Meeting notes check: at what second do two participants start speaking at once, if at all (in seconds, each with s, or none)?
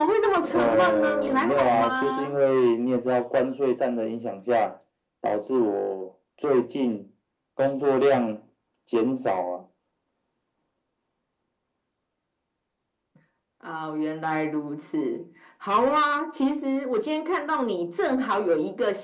0.5 s